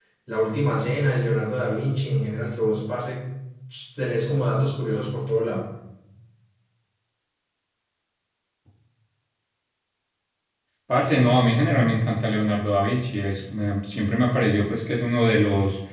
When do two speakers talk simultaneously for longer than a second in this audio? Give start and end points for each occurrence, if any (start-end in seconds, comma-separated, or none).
none